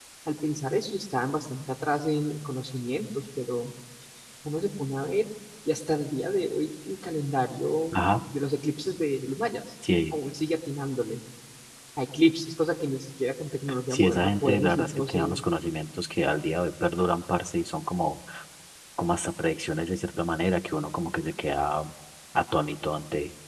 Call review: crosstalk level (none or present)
present